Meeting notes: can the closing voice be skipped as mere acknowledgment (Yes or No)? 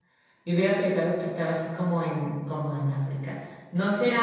Yes